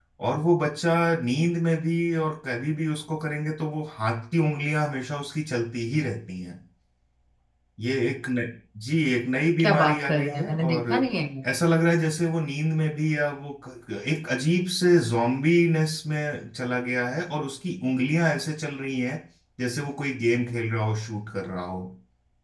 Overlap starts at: 9.6 s

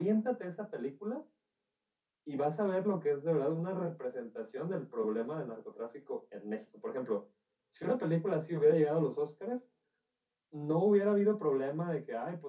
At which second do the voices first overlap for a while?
none

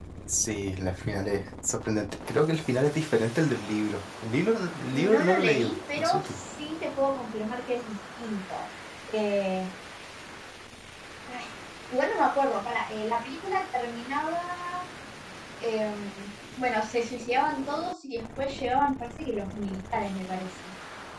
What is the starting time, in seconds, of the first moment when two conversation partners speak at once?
4.9 s

